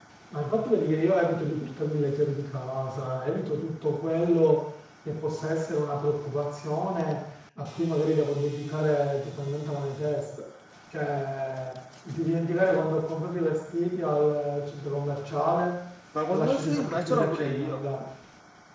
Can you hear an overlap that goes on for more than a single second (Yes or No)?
Yes